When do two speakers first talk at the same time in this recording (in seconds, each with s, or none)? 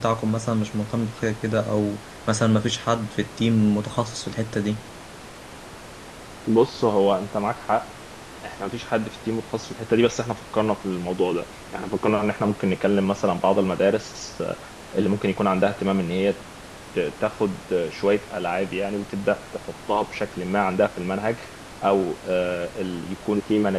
none